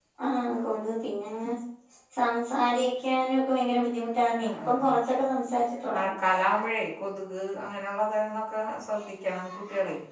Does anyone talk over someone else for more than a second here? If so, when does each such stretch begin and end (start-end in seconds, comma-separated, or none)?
none